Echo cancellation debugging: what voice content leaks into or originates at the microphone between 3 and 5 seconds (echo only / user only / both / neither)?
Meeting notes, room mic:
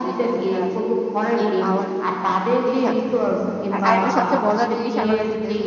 both